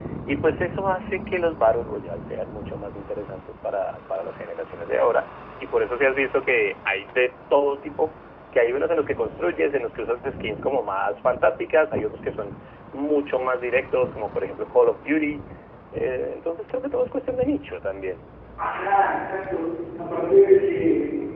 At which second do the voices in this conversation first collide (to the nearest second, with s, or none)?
none